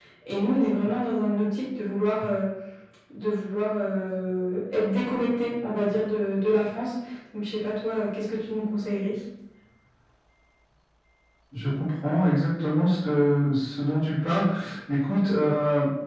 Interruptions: none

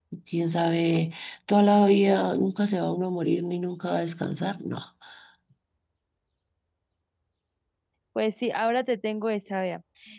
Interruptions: none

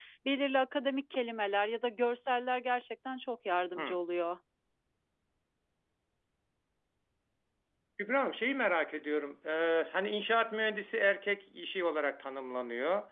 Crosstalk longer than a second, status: none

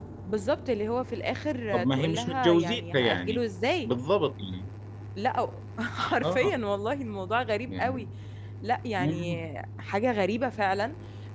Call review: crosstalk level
present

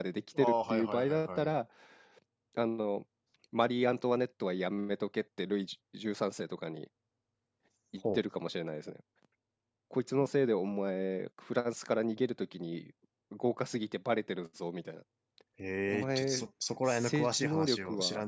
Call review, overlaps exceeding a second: present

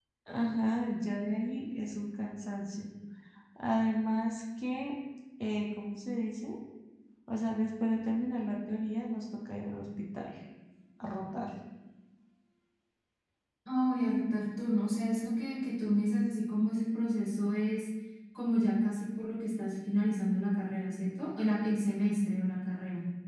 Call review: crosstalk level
none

